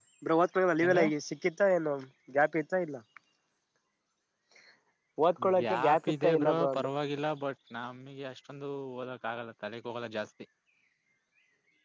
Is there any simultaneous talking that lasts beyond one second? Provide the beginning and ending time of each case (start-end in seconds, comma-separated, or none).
5.6-6.9